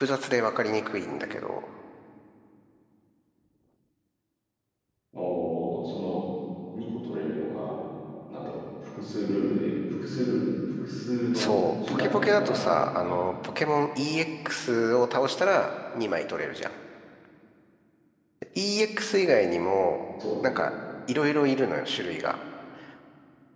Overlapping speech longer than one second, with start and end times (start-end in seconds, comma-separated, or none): 11.3-13.2